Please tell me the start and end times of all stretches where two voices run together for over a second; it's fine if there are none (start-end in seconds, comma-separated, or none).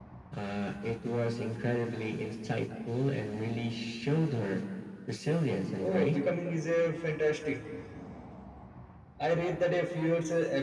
none